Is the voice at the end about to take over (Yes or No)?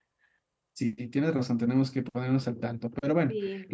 No